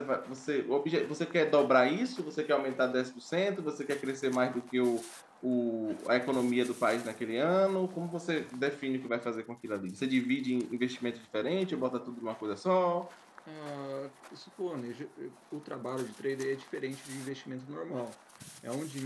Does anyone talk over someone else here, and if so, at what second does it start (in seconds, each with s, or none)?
none